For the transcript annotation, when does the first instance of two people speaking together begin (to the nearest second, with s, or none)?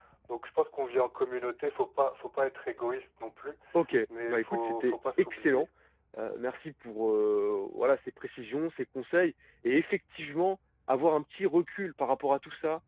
4 s